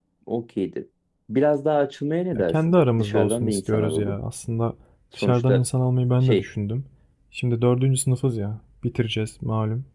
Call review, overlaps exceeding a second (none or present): present